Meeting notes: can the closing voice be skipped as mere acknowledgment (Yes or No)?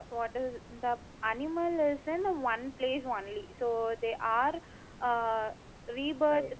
Yes